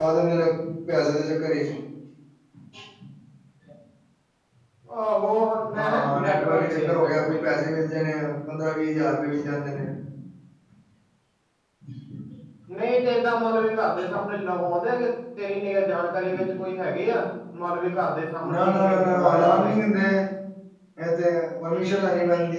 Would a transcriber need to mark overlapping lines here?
Yes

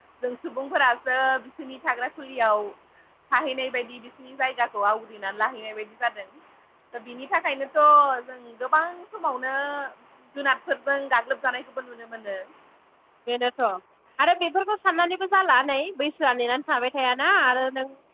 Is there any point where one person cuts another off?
No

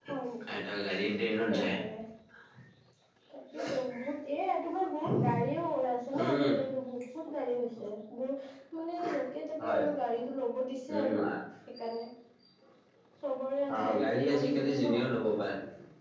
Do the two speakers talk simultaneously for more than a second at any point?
Yes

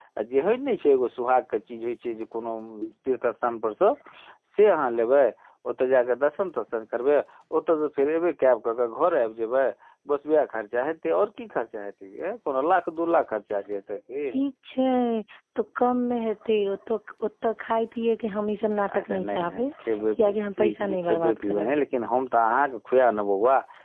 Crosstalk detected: Yes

